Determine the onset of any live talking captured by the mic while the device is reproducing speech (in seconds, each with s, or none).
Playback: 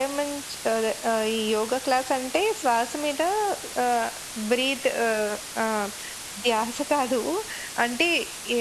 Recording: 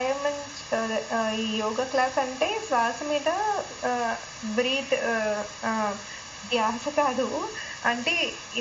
none